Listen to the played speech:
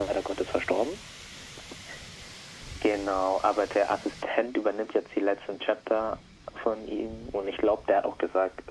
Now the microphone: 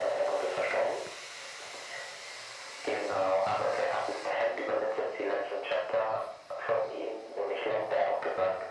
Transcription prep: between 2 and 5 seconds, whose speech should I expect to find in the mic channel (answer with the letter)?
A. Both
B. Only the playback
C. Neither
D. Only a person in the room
B